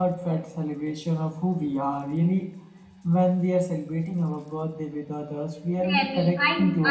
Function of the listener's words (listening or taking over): taking over